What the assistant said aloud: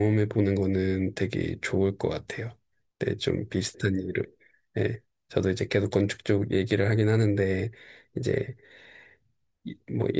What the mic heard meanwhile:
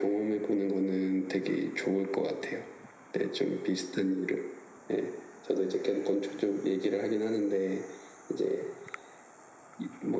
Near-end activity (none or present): none